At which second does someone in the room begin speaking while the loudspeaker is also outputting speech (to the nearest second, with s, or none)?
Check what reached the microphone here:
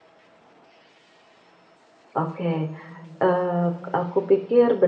2 s